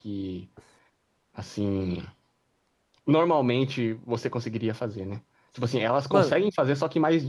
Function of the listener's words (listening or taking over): listening